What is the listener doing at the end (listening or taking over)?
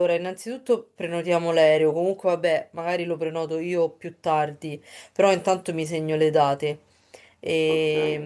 listening